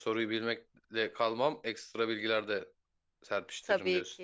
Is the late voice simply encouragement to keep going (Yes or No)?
No